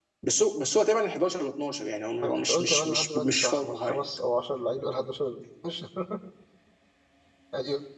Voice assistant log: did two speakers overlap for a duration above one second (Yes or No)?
Yes